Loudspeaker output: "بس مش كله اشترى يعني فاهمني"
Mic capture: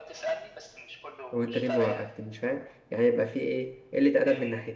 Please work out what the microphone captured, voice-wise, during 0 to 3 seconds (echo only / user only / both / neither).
both